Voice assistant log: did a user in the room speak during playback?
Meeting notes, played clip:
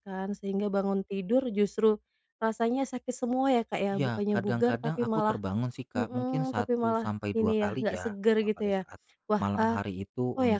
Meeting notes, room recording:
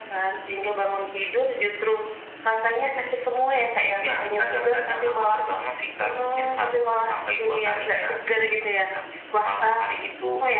No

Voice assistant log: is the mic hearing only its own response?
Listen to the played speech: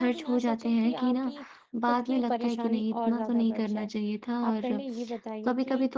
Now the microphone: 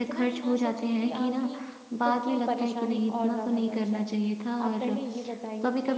Yes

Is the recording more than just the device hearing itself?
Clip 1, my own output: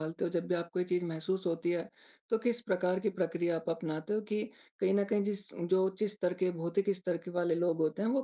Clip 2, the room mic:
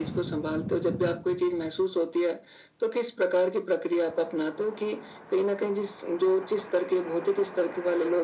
No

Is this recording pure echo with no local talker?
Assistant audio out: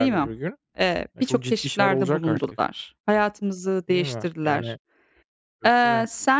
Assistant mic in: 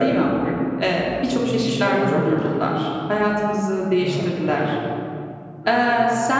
Yes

